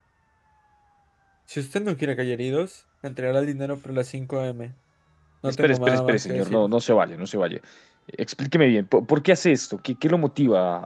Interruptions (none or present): present